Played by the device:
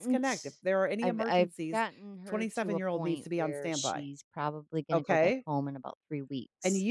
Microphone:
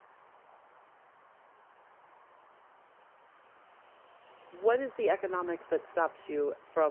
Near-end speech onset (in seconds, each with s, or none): 4.5 s